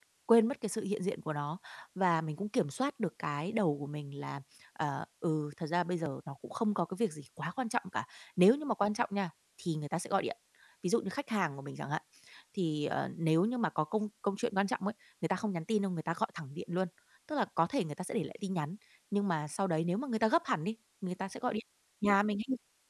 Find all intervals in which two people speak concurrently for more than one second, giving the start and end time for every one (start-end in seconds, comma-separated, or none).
none